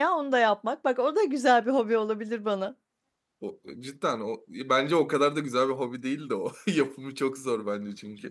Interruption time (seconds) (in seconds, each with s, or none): none